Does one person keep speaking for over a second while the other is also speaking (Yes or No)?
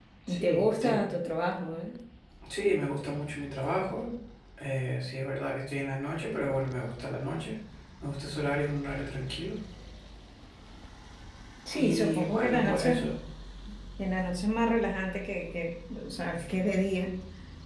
Yes